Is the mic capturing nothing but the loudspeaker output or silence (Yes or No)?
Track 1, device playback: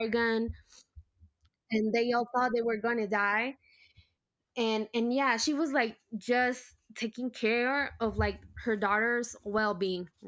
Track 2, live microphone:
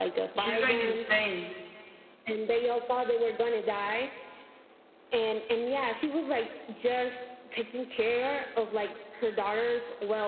No